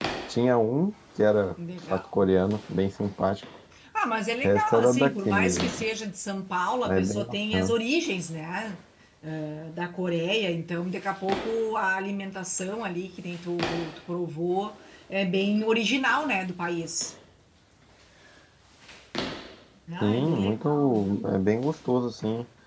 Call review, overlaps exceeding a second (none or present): present